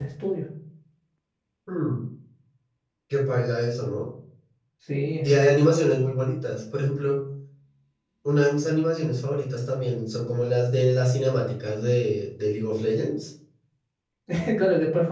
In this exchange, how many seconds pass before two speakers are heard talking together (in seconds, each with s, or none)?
none